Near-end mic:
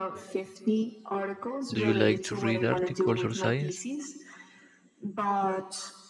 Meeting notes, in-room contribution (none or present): present